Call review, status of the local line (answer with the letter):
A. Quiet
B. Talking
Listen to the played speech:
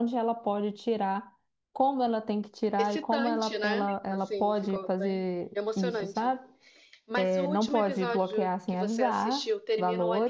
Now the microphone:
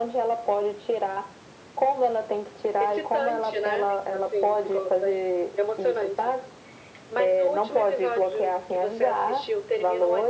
A